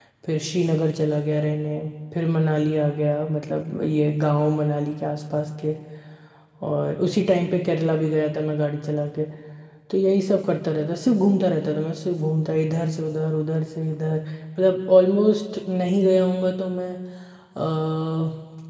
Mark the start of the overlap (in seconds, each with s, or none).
none